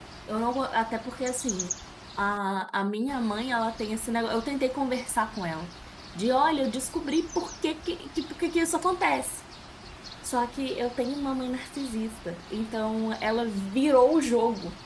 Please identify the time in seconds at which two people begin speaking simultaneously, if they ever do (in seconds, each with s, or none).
none